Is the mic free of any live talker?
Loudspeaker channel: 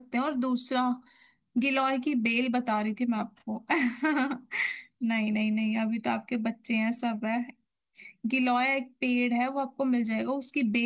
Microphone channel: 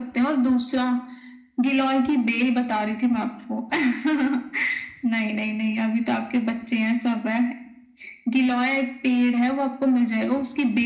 Yes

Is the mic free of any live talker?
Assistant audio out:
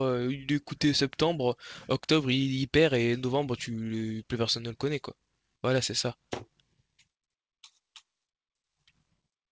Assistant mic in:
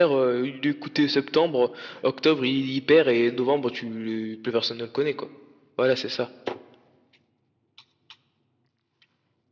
Yes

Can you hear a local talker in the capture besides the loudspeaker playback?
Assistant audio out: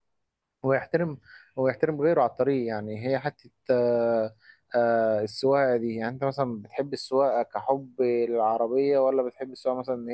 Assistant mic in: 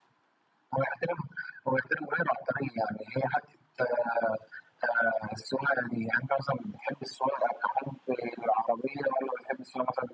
No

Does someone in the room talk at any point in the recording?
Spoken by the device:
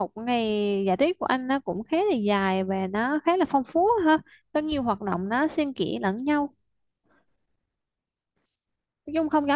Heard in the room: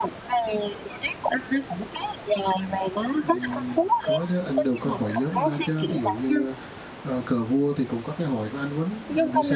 Yes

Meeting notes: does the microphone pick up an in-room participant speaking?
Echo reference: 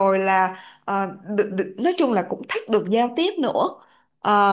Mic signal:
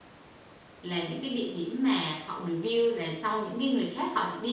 Yes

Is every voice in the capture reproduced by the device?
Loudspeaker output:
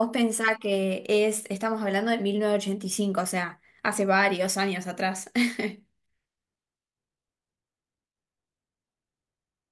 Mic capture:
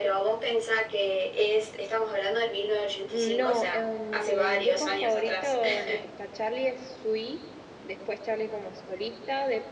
No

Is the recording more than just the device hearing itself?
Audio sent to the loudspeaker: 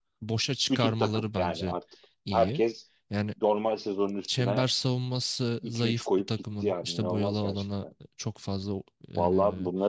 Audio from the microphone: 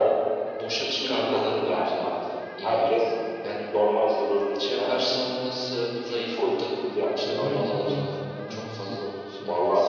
Yes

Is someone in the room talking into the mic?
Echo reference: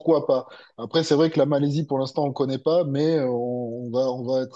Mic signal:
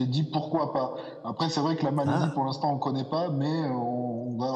Yes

